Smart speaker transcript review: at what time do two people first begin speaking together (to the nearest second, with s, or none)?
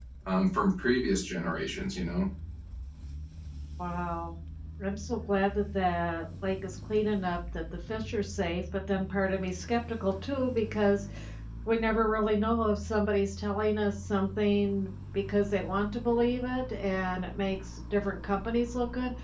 none